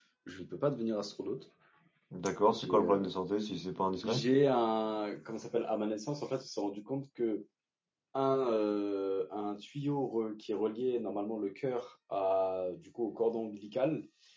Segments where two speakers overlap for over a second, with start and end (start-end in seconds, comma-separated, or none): none